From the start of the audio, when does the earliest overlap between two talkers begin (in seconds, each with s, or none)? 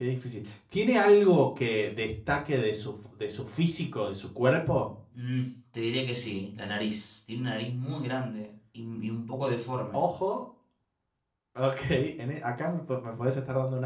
none